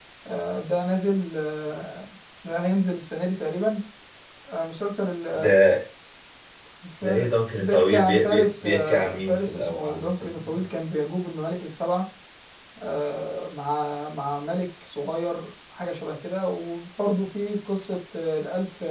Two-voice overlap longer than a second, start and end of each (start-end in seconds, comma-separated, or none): 7.0-10.7